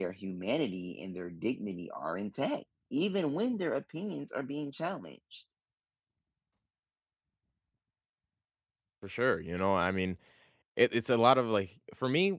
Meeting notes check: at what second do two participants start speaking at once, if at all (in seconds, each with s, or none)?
none